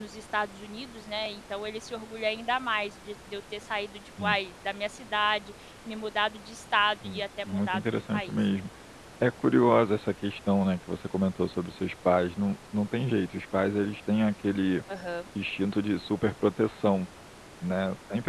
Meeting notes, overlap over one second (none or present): present